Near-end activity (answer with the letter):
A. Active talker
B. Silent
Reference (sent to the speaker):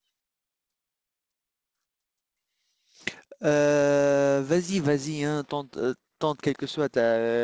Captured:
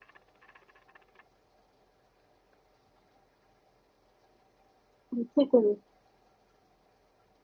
A